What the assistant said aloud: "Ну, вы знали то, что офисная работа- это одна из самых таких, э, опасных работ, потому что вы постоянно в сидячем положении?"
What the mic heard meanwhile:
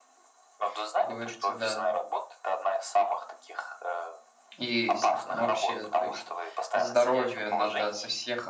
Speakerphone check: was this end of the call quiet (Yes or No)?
No